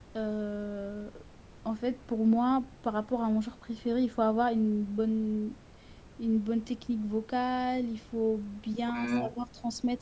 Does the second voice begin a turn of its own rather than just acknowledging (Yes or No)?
No